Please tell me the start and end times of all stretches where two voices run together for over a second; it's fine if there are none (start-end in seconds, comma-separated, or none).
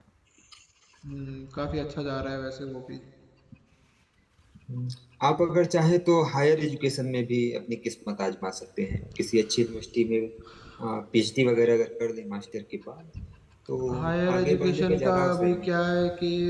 14.0-15.7